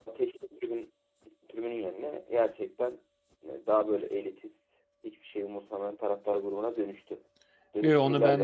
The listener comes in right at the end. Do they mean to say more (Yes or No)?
Yes